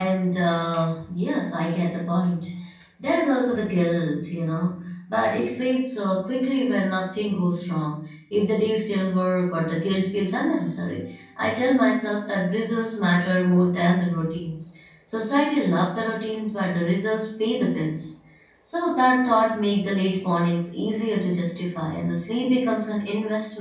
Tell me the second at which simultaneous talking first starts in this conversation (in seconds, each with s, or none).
none